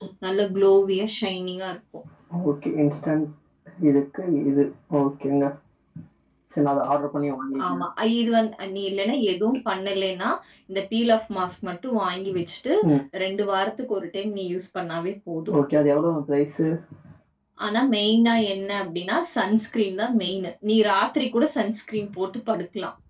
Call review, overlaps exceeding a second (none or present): none